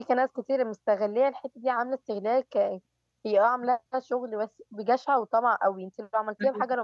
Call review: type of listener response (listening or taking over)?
listening